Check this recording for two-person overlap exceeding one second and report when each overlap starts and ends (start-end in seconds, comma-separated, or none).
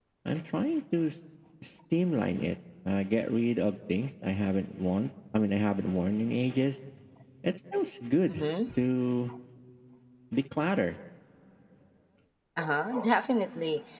none